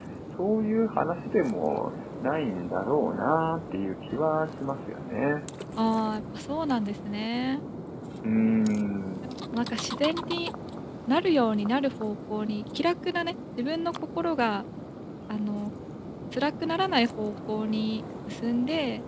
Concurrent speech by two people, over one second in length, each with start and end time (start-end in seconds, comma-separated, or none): none